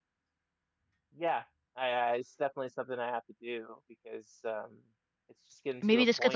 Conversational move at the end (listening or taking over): taking over